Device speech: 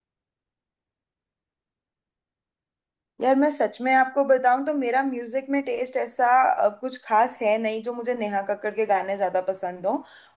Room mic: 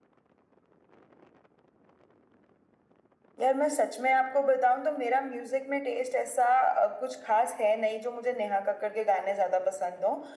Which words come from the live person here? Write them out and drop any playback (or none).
none